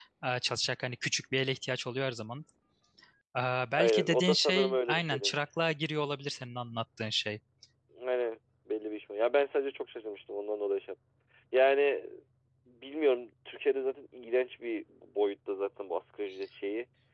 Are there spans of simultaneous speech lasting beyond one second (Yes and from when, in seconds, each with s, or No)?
Yes, from 3.7 s